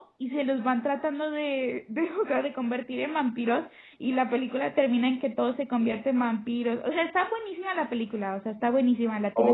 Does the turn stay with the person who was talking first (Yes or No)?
No